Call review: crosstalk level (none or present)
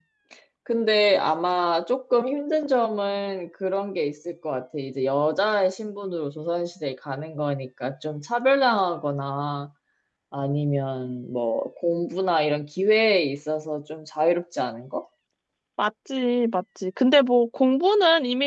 none